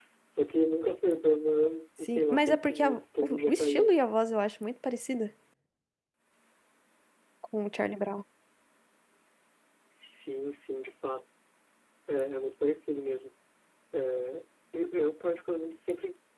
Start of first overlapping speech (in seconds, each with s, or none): 2.0 s